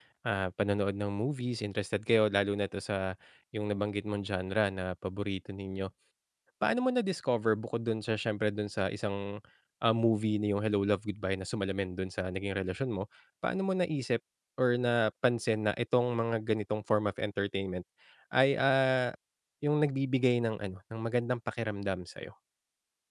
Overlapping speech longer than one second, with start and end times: none

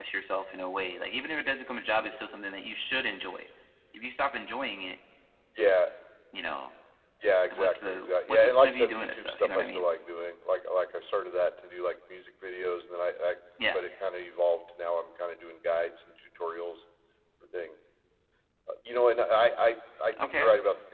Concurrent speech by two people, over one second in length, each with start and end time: 7.5-9.9

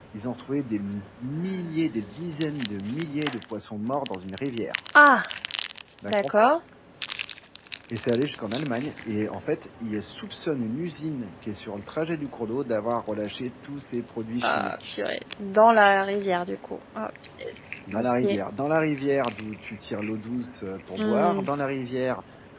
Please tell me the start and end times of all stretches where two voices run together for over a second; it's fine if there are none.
none

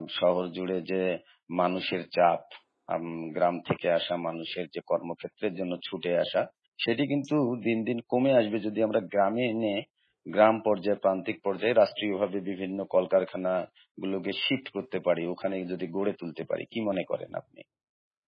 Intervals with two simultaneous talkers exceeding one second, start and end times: none

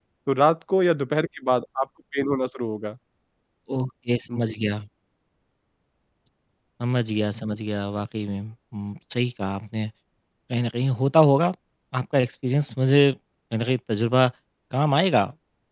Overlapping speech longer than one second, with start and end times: none

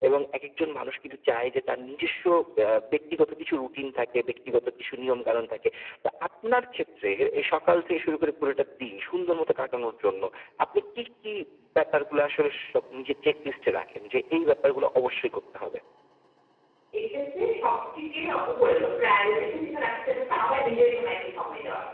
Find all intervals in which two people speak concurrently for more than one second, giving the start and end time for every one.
none

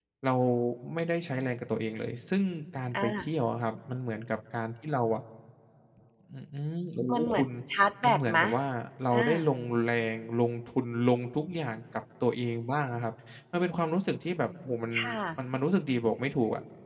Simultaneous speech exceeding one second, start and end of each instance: none

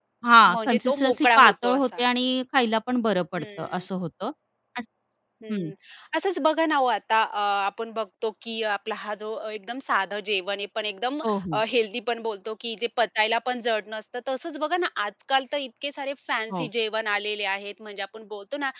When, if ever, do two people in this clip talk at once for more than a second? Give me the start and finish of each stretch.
0.5-2.0

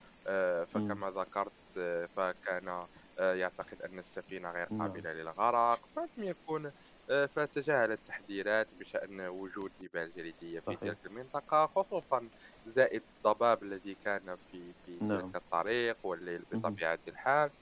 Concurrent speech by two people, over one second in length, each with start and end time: none

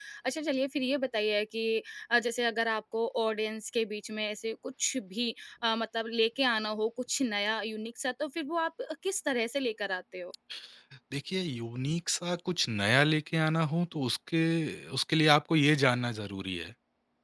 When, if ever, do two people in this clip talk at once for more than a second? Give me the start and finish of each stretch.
none

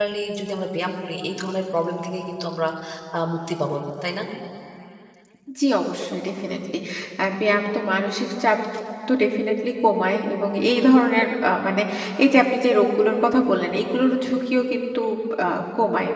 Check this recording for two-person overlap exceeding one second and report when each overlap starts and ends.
none

